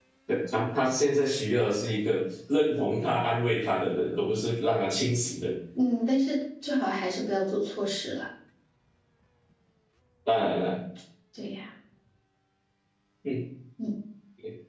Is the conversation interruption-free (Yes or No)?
Yes